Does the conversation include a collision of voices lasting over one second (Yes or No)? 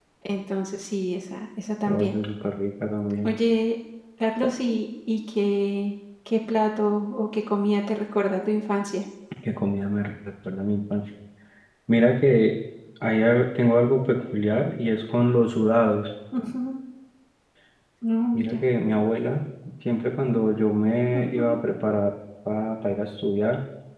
No